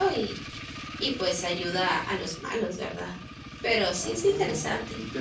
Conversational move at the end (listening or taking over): taking over